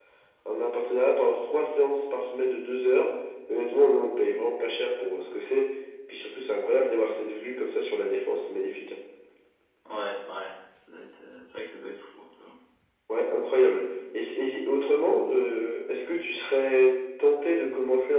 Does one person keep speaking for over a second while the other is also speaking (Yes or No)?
No